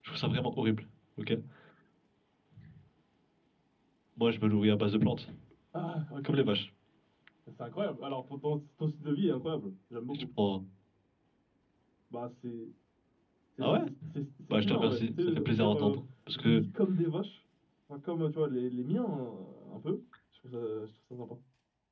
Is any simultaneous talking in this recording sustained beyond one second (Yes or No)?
Yes